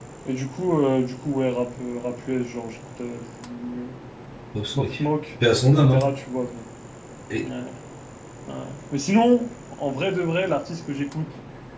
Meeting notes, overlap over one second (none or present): none